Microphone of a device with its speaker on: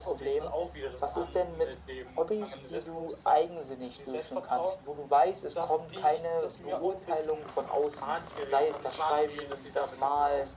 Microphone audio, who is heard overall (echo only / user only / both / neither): echo only